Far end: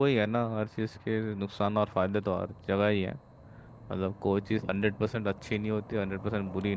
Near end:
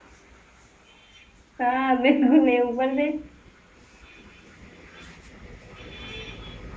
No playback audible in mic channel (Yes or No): Yes